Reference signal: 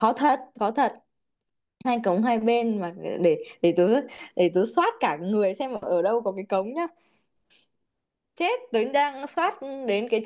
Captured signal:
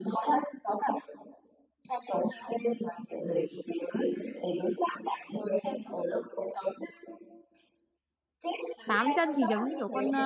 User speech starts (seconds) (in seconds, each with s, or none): 8.9 s